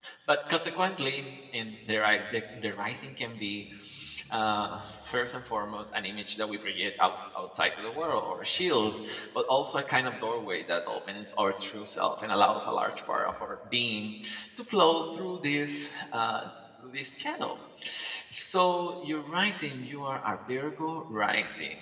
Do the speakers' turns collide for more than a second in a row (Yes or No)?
No